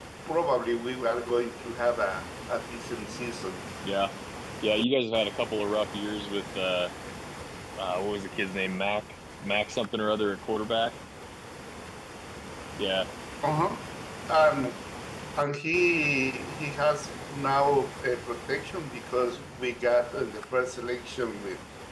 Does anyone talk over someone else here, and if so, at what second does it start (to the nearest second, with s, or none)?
none